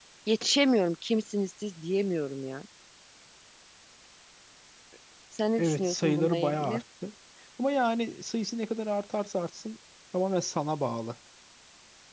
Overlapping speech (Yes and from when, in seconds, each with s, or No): Yes, from 5.6 s